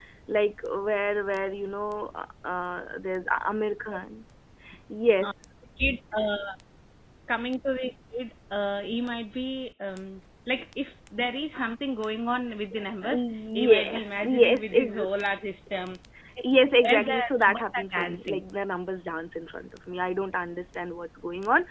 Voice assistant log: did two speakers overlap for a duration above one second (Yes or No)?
Yes